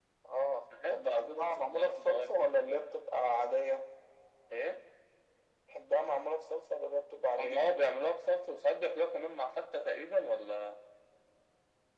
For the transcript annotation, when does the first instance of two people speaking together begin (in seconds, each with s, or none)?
0.9 s